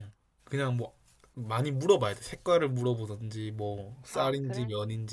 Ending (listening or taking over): listening